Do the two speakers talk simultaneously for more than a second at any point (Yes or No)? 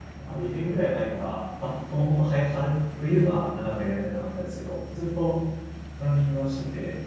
No